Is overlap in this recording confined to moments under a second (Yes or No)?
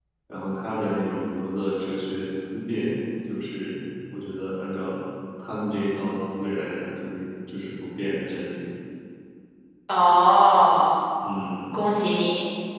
Yes